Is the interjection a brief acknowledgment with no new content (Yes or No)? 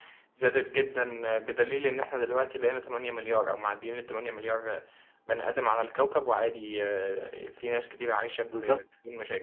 No